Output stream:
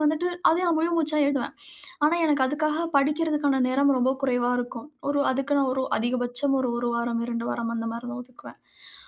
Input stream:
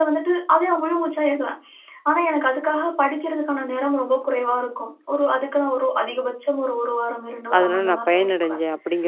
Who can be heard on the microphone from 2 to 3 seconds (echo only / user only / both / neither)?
echo only